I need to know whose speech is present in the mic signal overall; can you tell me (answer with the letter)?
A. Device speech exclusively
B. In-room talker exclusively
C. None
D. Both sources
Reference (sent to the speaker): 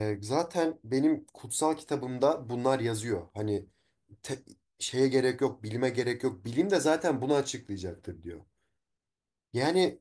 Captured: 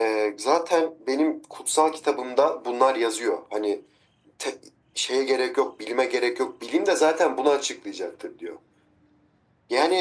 A